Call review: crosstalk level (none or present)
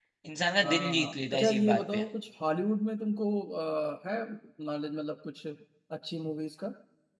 present